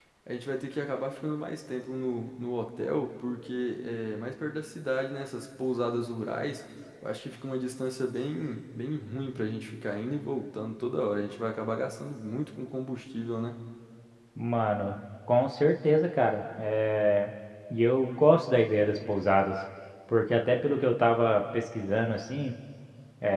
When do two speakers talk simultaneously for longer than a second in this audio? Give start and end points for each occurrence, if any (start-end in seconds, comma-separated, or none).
none